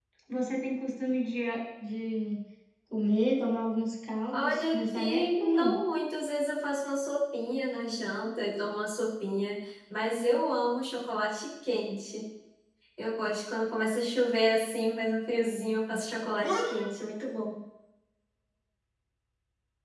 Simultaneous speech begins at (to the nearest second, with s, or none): 4 s